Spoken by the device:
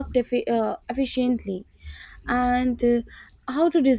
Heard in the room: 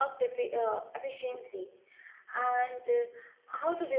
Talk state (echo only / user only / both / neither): echo only